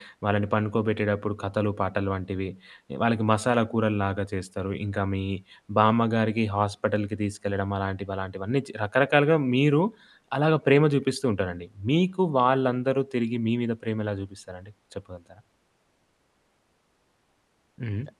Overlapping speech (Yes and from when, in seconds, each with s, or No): No